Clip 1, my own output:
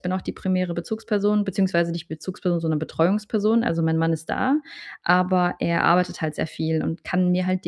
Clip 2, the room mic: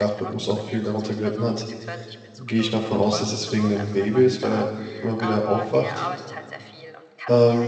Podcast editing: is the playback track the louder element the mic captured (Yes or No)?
No